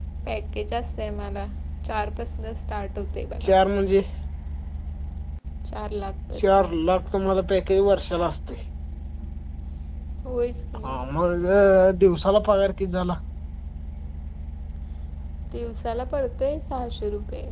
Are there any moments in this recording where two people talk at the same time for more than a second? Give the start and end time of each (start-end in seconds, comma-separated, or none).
none